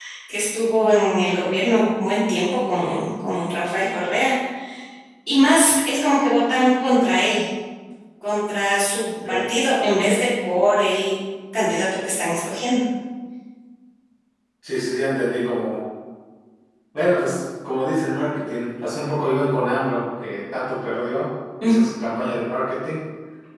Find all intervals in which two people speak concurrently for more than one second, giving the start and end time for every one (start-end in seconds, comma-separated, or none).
none